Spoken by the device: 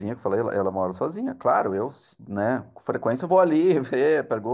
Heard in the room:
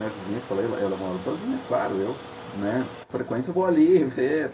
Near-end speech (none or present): none